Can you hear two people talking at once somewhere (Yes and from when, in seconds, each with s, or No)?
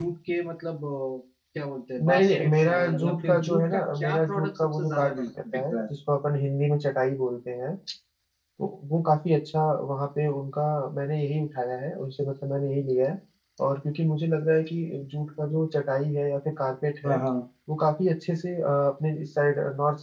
Yes, from 2.0 s